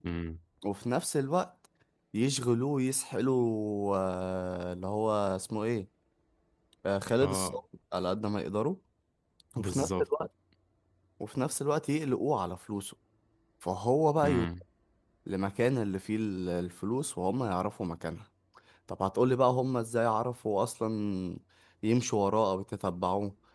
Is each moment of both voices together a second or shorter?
Yes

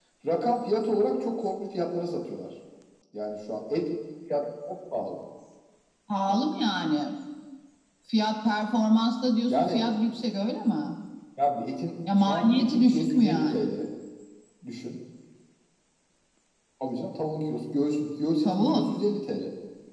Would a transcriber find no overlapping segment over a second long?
No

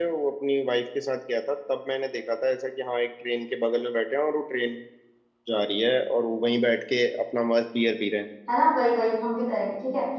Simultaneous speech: No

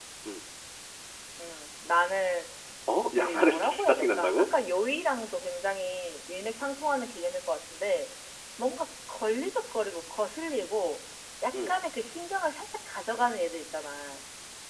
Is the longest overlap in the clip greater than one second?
Yes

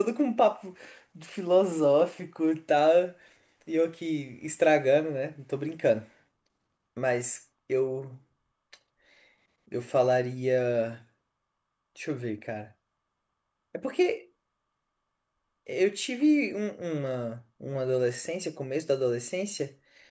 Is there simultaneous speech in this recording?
No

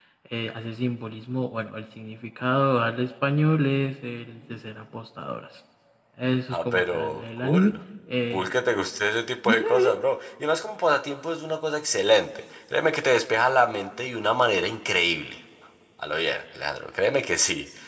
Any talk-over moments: Yes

